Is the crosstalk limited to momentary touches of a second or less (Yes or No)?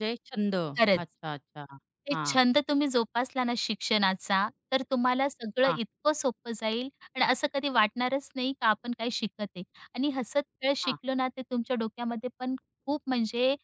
Yes